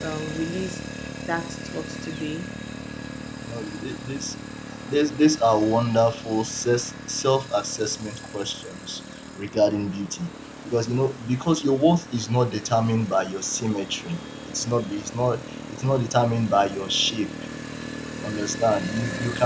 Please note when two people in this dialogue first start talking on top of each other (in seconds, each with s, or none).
none